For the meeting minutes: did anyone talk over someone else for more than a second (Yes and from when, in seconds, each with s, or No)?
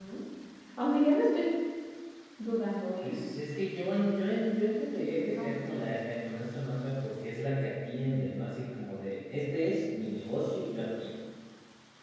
No